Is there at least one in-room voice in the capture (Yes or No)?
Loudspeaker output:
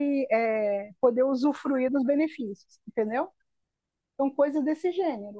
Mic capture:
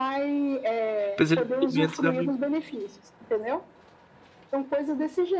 Yes